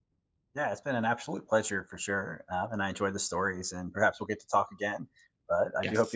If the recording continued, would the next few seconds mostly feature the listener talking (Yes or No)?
Yes